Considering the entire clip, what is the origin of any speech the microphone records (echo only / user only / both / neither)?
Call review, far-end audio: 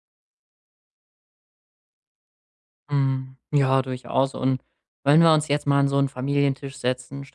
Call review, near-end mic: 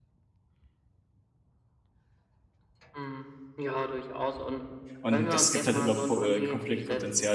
both